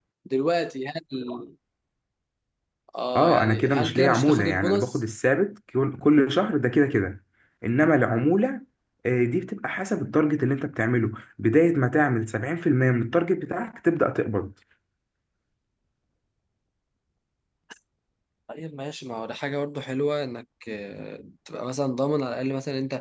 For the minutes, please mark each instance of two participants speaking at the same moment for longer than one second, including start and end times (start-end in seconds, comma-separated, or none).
3.2-5.0